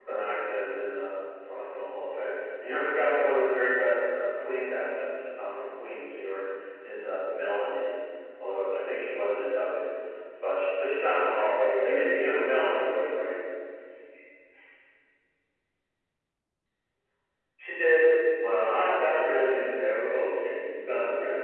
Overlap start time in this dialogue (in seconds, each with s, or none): 11.3 s